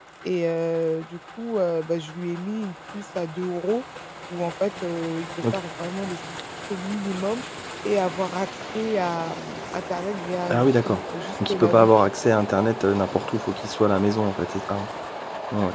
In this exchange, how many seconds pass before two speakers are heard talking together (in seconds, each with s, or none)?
10.5 s